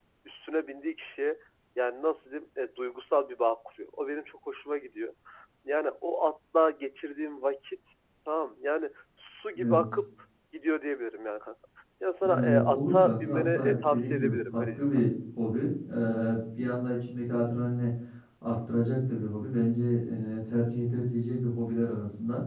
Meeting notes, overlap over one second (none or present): present